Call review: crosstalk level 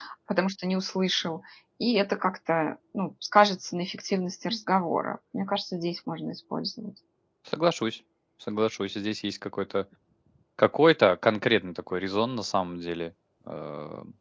none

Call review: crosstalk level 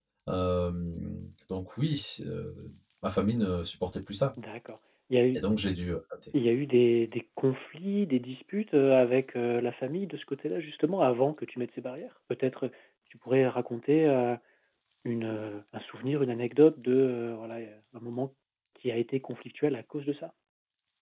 none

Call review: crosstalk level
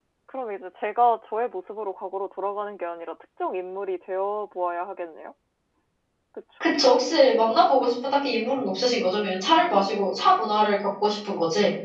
none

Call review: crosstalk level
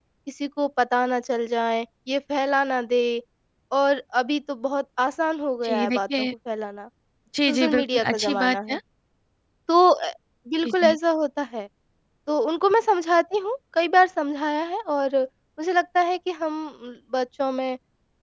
present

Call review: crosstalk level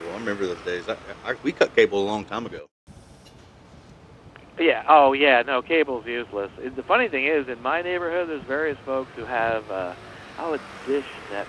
none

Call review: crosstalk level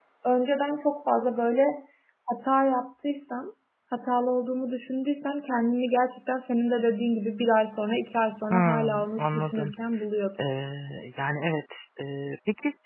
present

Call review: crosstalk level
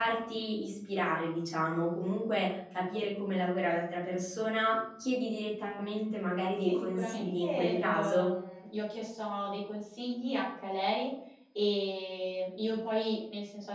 present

